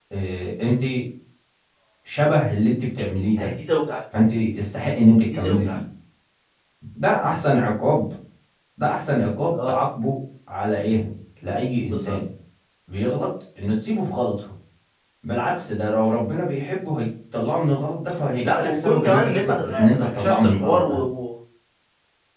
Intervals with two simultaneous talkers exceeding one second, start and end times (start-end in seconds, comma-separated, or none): 18.4-21.0